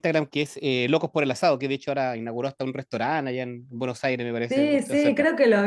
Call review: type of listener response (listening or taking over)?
taking over